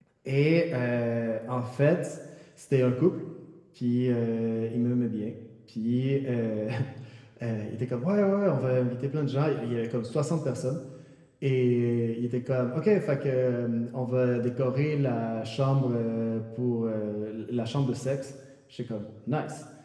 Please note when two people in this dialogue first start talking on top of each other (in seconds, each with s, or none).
none